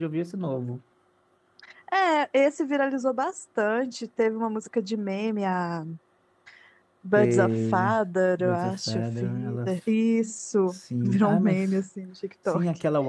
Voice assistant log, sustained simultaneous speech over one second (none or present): present